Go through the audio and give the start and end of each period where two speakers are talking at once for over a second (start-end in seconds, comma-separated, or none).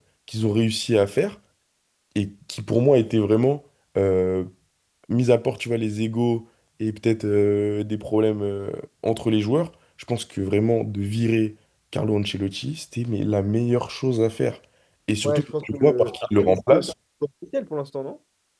15.2-16.6